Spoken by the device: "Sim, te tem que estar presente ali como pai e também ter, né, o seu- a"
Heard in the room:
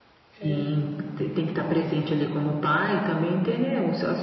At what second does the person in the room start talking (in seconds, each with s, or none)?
0.3 s